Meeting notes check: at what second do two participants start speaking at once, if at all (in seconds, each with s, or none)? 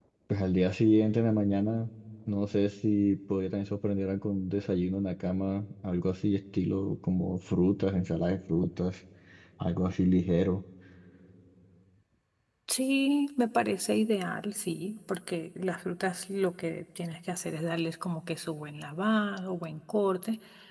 none